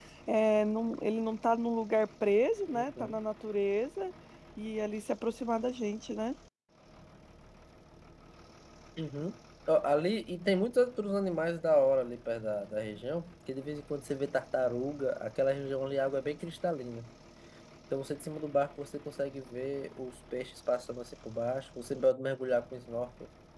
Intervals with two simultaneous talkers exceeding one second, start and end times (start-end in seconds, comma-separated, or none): none